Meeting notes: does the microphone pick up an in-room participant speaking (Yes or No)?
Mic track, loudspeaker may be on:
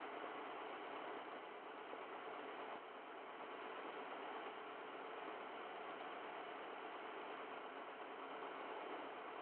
No